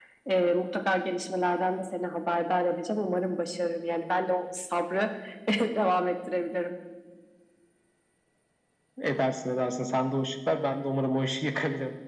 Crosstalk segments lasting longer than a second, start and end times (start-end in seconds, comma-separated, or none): none